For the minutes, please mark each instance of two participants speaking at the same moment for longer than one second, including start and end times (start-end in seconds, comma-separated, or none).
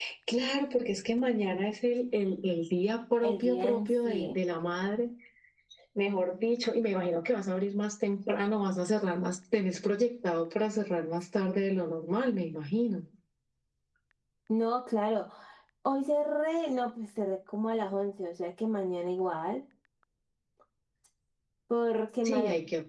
3.2-4.4